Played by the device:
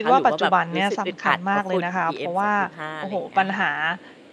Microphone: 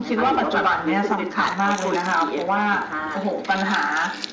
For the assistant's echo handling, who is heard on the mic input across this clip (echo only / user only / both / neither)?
echo only